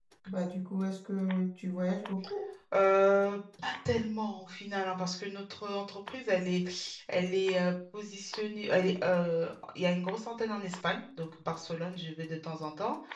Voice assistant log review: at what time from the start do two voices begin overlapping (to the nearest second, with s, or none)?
none